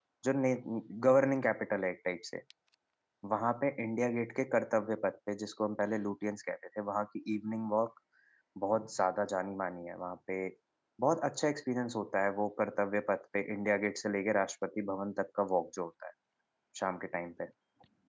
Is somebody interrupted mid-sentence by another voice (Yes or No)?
No